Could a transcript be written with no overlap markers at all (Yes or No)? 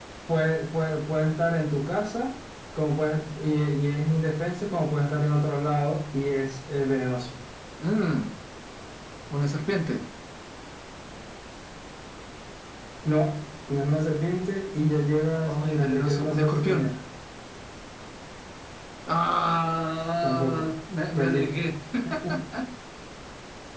No